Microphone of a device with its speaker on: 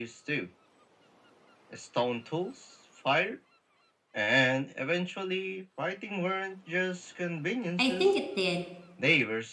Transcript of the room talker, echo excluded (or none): I think it did,